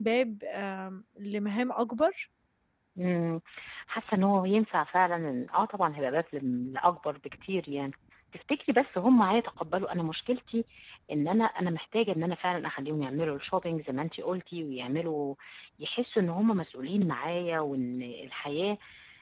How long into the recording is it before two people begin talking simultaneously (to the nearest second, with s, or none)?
none